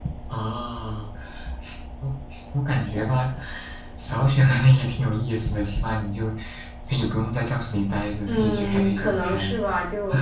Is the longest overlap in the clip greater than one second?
Yes, from 8.3 s

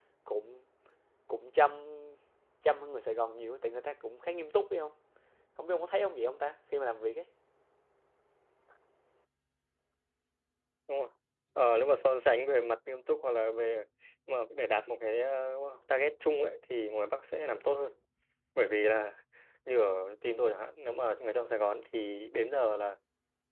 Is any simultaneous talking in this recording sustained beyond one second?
No

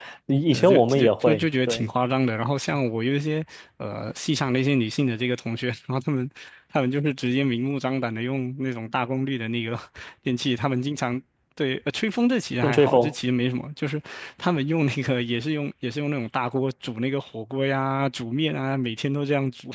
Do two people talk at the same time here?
Yes, from 0.5 s

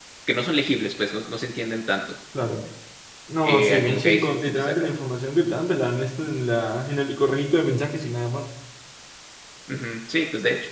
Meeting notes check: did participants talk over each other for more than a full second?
Yes, from 3.4 s

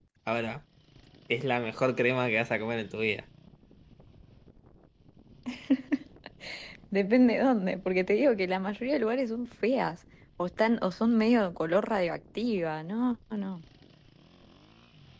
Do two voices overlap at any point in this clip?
No

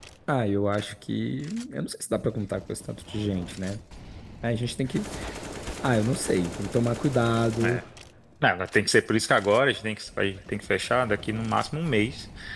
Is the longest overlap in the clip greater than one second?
No

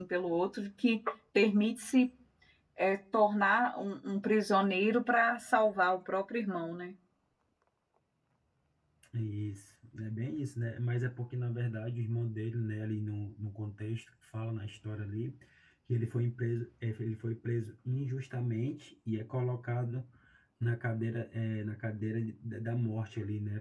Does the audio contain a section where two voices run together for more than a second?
No

